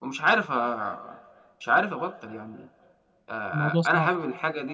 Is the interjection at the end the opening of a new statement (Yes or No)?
No